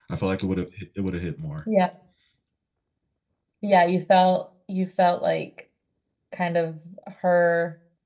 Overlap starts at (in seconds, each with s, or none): none